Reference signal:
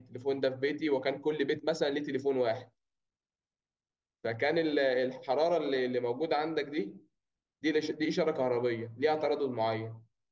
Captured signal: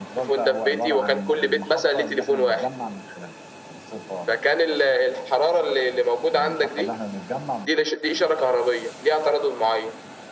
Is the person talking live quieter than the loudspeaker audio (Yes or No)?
Yes